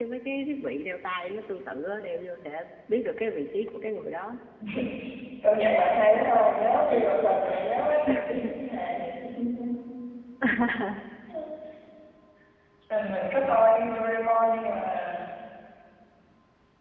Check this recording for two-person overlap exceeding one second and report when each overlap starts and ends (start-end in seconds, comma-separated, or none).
none